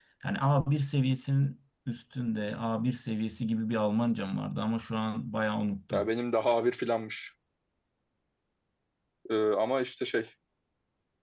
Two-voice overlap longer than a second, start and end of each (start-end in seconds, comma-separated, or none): none